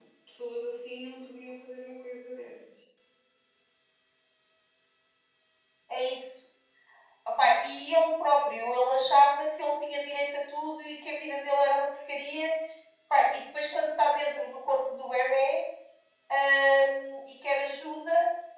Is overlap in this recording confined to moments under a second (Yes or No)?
Yes